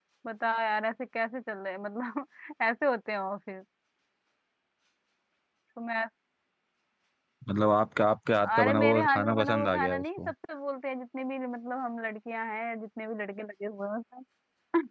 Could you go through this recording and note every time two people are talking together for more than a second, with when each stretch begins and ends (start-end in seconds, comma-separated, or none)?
8.6-10.3